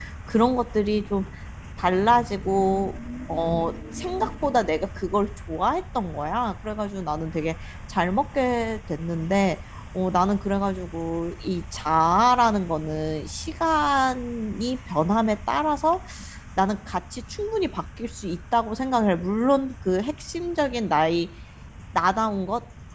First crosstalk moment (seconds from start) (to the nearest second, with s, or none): none